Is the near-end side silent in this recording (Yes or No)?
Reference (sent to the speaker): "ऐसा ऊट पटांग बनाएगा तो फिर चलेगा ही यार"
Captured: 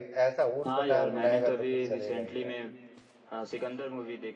No